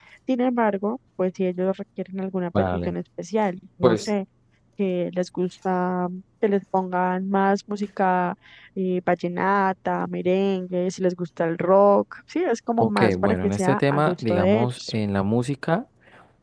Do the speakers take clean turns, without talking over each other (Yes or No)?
No